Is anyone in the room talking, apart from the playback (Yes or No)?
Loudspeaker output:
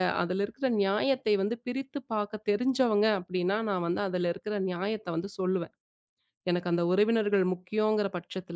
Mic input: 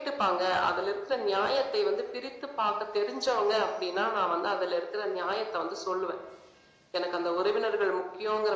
No